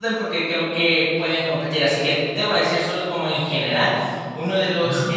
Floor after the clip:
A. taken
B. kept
B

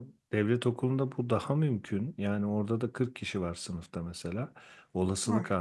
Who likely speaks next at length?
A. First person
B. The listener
A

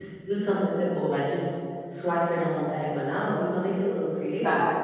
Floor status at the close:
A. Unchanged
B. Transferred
B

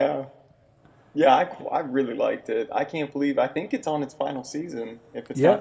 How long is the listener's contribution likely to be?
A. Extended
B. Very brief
A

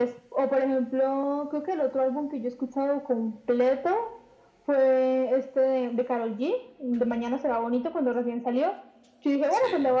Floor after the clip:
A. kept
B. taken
A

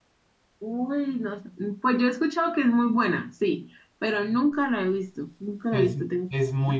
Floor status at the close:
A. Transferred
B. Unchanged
A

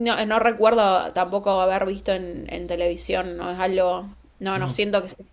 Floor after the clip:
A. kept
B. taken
A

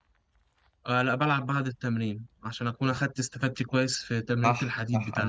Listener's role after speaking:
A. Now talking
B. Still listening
A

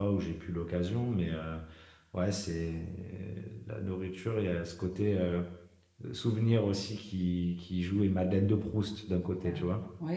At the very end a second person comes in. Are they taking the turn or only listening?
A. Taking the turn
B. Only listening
A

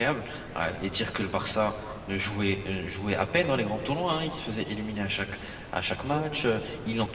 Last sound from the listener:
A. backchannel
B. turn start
A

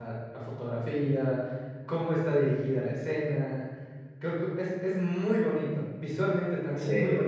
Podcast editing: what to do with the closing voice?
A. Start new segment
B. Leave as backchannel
B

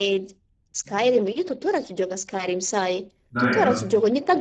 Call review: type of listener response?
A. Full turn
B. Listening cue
B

